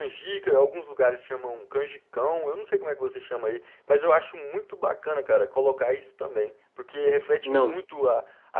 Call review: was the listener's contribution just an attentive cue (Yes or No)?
Yes